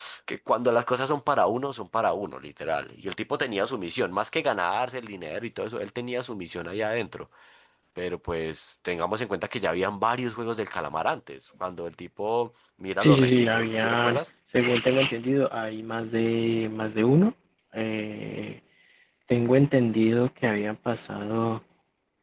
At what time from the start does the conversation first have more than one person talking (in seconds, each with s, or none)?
13.0 s